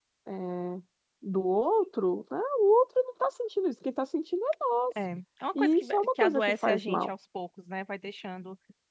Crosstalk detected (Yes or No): Yes